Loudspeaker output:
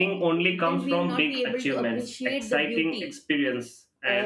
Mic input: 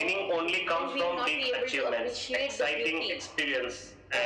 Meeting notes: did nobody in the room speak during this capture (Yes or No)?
Yes